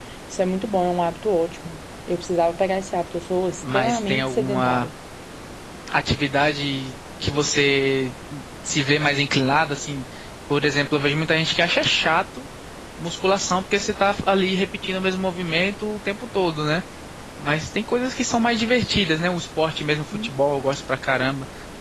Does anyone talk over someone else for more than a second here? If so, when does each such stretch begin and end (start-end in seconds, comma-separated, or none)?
3.6-4.9